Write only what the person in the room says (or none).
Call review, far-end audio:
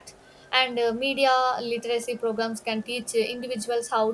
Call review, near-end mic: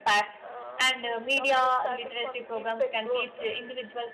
uh, when we talk about statics on deepfake growth,